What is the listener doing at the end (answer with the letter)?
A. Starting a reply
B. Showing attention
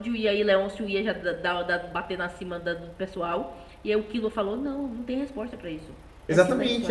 A